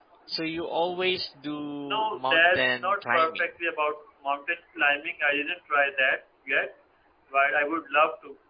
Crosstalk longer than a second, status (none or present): present